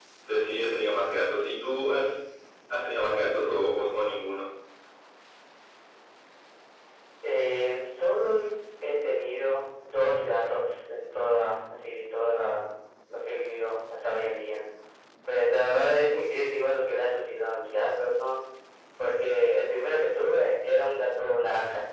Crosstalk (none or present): none